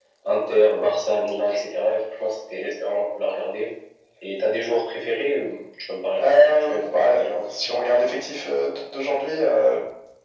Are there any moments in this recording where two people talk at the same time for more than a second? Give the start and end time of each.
6.1-7.4

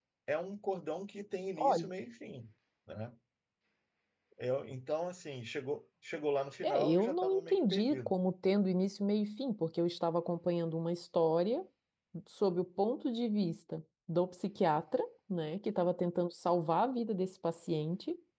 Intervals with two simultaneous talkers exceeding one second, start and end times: 6.6-8.1

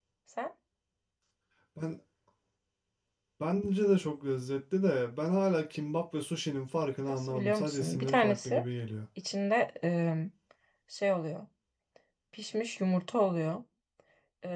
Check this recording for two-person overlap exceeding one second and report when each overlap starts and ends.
7.1-8.6

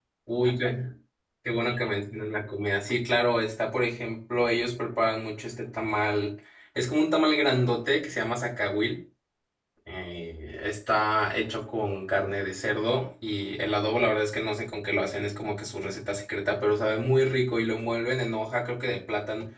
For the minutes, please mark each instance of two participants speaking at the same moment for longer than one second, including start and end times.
none

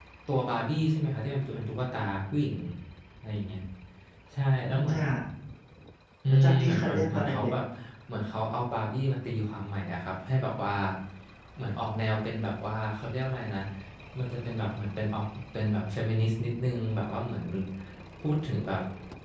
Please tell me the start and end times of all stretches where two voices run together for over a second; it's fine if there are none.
6.3-7.5

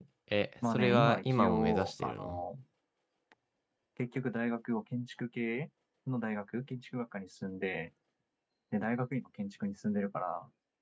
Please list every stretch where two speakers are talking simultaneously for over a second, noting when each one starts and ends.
0.7-2.4

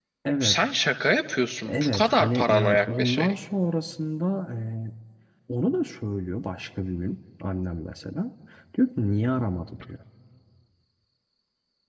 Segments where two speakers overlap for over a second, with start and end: 1.6-3.3

